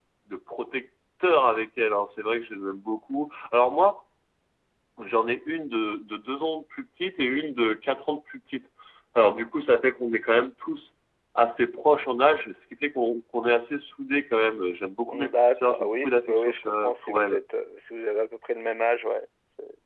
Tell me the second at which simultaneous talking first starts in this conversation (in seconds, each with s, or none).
15.1 s